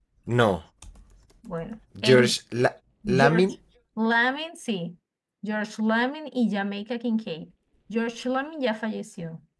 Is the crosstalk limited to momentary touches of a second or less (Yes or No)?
Yes